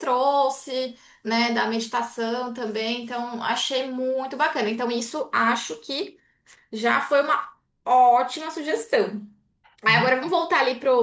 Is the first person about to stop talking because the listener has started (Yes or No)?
No